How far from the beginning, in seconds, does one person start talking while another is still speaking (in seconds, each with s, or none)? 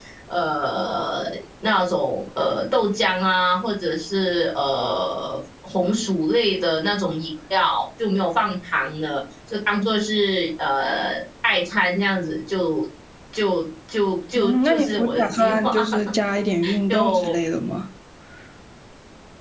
14.3 s